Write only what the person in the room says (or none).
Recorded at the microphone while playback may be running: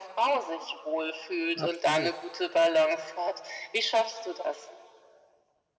absolut.